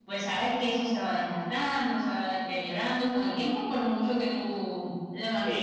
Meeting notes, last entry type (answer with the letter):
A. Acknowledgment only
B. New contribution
B